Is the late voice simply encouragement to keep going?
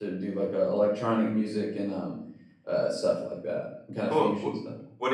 No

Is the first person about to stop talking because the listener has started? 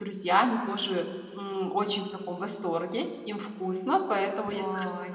No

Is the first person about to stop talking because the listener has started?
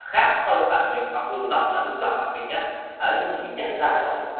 No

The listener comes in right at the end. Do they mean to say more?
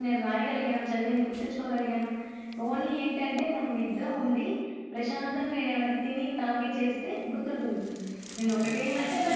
Yes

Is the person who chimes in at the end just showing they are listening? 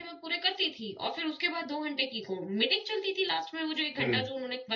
Yes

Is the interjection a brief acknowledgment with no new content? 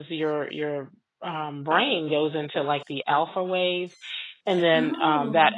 Yes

